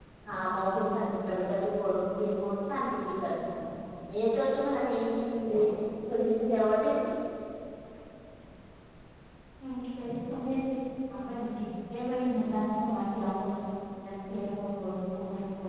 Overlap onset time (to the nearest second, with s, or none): none